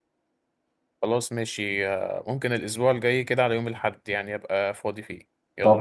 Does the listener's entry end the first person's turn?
Yes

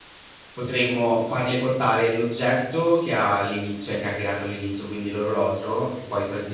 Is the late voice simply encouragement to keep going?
Yes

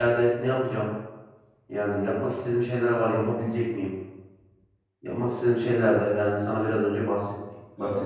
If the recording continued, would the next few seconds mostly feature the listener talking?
Yes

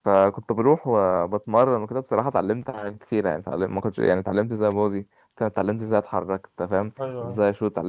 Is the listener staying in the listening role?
Yes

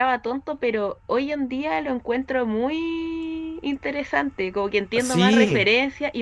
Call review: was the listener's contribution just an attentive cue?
Yes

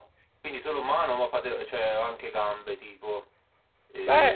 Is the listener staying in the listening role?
No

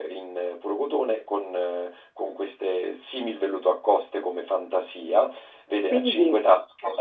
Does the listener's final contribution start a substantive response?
No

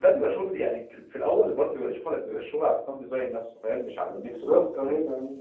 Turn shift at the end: Yes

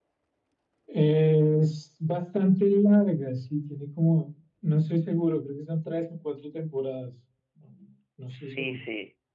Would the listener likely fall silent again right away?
No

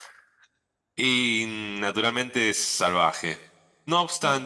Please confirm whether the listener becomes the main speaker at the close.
No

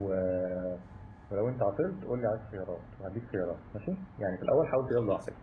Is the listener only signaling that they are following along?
Yes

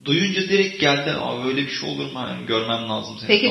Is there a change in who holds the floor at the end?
Yes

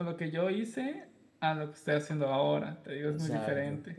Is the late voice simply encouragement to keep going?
No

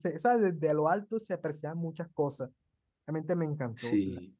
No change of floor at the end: No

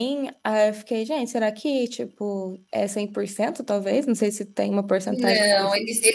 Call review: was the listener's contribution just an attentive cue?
No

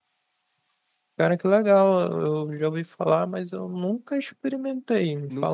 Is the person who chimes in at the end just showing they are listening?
No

